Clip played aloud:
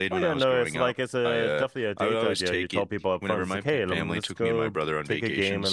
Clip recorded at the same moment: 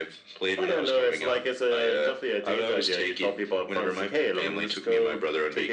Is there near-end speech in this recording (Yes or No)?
No